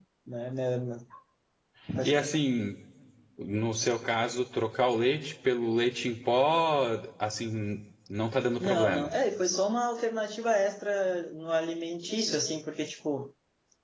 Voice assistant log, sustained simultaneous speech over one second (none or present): none